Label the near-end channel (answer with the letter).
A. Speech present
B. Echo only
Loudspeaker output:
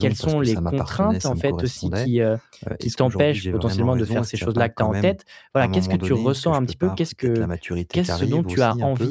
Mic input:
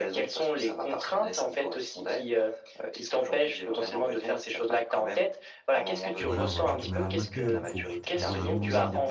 A